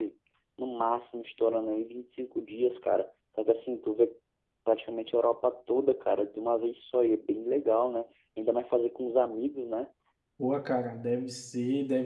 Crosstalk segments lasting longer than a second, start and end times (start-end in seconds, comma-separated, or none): none